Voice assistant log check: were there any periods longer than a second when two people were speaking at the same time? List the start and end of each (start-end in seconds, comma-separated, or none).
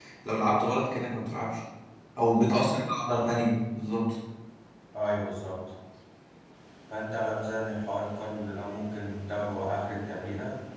none